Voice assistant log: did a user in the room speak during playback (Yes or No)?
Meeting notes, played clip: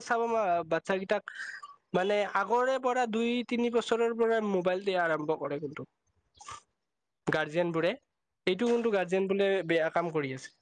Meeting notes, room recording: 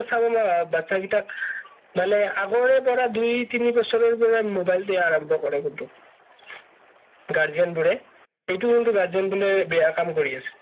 No